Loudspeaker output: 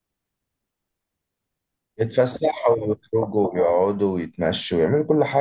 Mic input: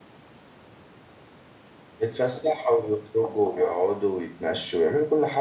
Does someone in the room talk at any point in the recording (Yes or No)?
No